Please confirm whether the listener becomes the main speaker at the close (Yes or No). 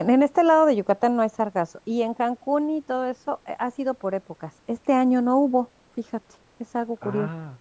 No